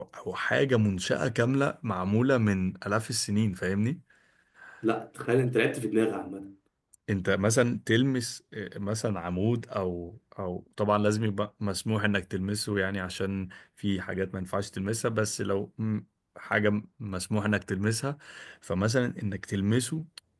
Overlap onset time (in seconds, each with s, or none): none